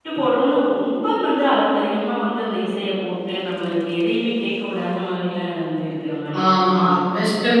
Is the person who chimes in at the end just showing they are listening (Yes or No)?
No